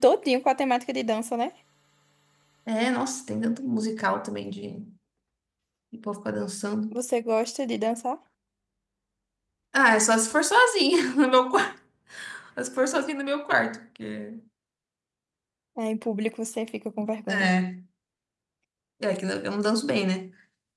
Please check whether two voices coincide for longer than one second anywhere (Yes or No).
No